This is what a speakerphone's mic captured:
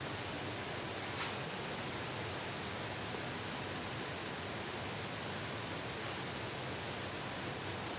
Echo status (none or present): none